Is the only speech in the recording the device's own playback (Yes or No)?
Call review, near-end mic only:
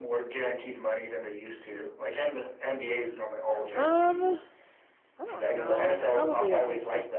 No